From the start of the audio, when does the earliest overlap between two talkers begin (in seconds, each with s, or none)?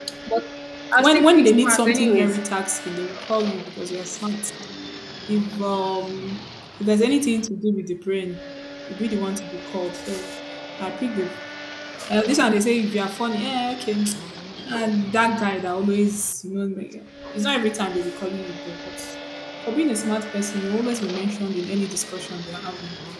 1.0 s